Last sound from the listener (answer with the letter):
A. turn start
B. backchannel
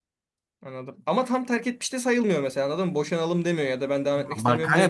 A